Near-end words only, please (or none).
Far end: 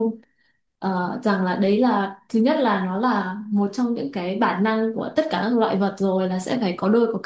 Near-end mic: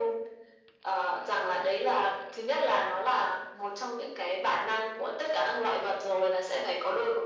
none